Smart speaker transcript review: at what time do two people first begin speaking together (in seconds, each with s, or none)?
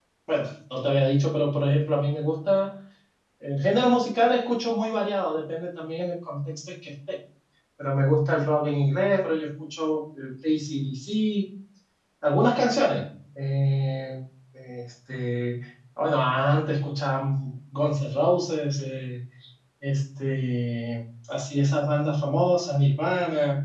none